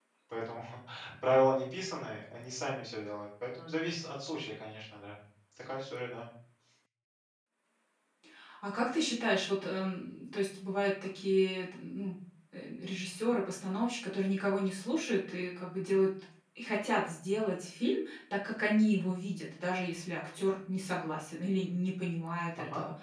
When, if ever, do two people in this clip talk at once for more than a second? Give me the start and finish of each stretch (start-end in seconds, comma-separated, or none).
none